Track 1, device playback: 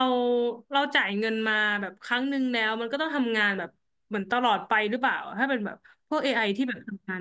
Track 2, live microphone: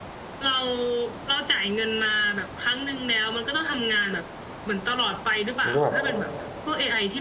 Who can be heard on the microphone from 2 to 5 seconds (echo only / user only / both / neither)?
echo only